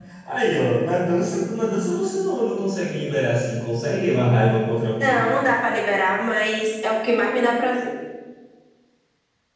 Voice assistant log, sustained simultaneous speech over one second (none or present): none